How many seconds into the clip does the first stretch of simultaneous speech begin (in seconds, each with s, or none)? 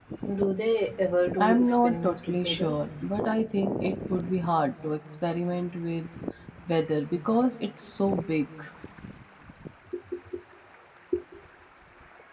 1.4 s